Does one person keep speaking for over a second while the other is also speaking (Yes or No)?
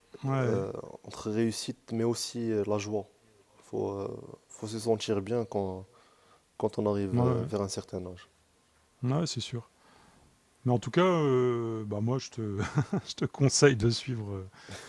No